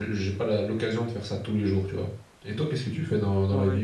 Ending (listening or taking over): taking over